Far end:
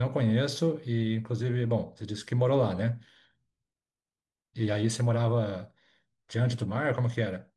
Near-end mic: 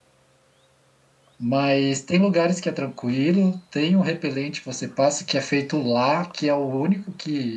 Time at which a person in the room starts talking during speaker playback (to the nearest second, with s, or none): 1 s